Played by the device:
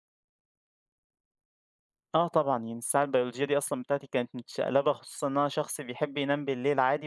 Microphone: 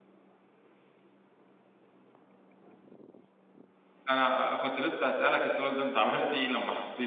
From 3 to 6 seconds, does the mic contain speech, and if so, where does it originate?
user only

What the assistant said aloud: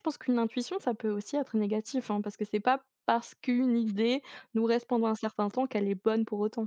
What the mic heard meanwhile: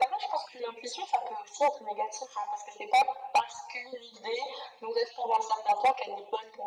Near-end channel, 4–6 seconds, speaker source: echo only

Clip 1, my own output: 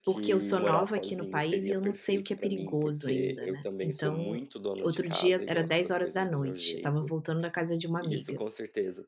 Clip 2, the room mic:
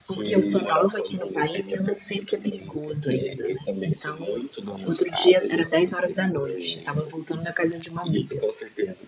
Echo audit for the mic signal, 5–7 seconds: echo only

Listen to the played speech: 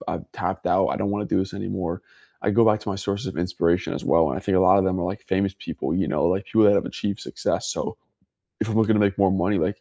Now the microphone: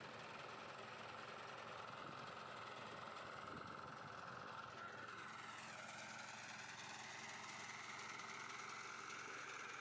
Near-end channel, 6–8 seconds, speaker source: neither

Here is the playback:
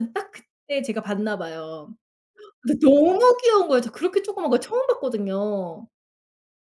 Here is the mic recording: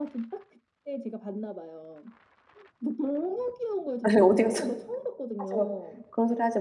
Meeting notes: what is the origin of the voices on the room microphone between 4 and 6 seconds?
both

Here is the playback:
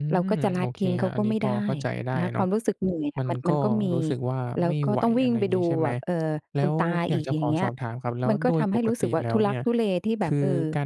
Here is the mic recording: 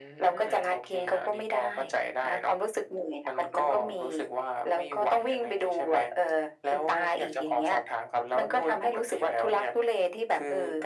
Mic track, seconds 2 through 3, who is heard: echo only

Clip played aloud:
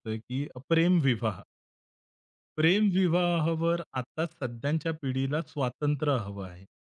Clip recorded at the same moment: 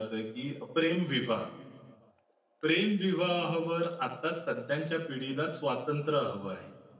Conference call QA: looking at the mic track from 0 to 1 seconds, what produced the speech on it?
echo only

